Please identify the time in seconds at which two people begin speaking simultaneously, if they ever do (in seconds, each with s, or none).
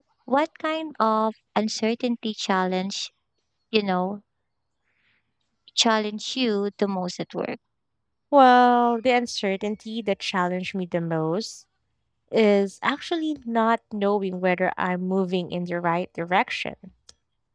none